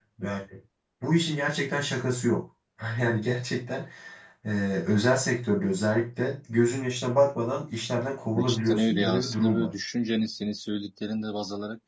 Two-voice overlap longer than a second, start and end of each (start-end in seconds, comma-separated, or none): 8.3-9.7